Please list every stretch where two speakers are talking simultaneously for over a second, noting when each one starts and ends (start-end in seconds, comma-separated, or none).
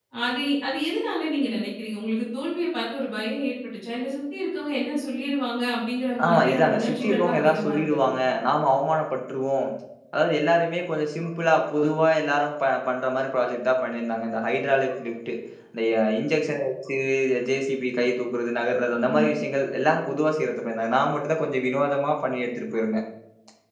6.3-8.1